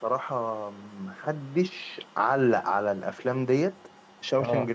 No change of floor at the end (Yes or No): Yes